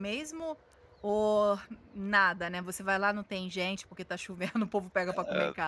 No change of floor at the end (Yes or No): No